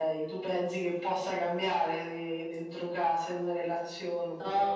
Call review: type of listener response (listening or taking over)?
taking over